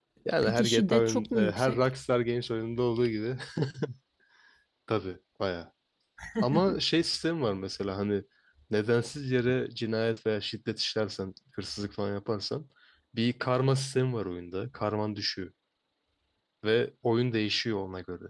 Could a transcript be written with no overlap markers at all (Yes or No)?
No